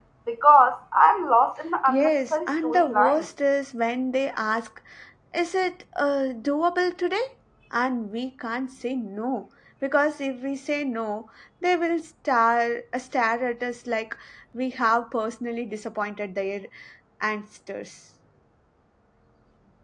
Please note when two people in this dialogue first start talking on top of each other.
1.9 s

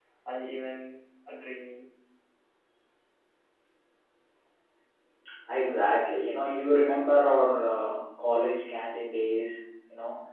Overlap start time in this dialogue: none

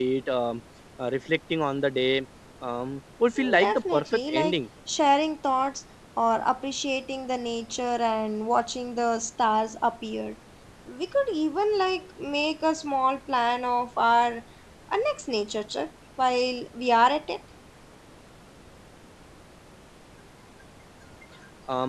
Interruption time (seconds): 3.4 s

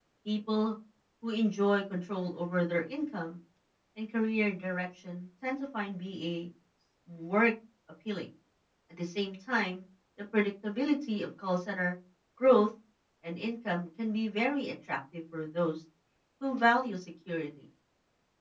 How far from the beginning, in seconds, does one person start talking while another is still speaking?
none

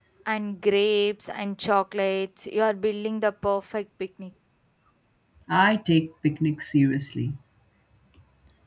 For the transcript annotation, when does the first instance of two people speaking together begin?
none

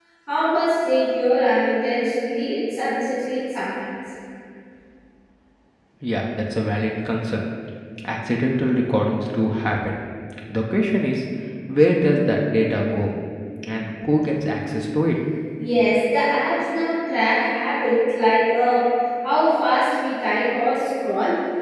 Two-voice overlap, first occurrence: none

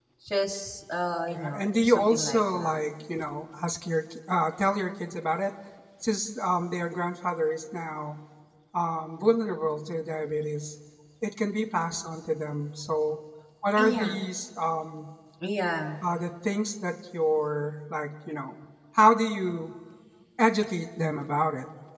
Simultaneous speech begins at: 1.3 s

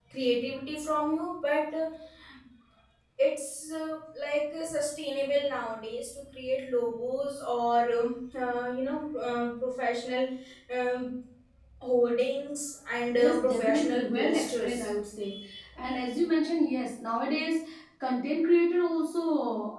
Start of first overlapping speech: 13.1 s

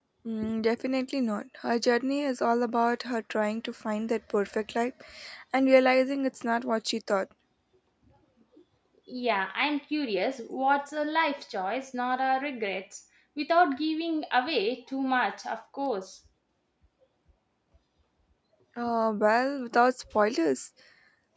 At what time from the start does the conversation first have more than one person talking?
none

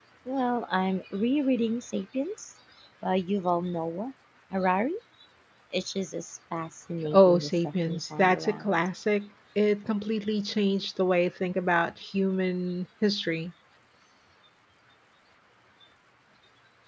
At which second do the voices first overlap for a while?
7.1 s

